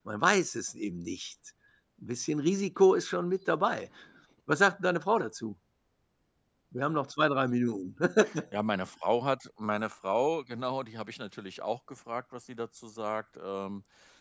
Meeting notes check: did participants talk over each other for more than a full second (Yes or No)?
No